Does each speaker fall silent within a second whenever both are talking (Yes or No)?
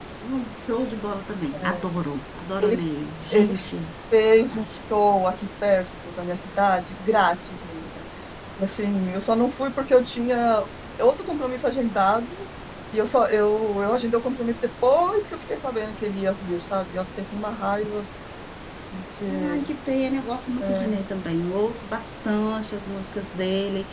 Yes